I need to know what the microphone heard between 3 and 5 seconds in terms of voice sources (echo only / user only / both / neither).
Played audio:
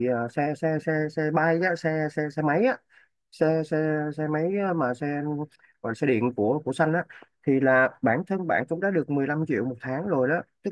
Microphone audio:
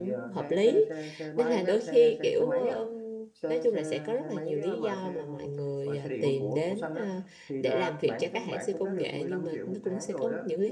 both